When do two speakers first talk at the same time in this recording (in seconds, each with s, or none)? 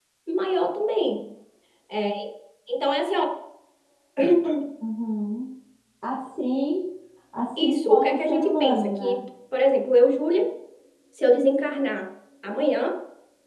7.6 s